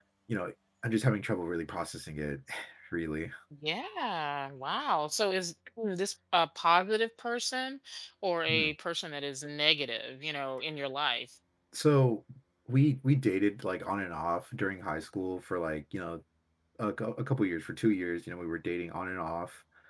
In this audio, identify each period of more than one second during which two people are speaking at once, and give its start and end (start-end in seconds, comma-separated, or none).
none